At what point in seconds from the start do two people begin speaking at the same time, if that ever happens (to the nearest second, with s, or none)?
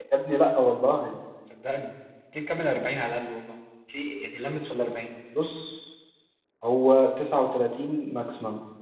none